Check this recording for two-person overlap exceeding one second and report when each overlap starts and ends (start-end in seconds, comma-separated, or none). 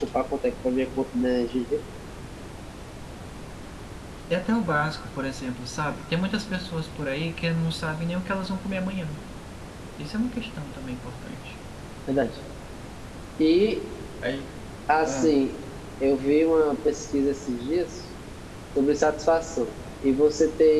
none